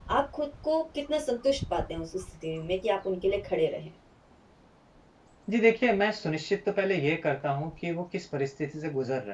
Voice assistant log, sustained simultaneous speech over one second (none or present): none